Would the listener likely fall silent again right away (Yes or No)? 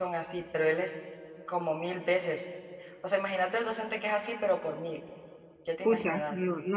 No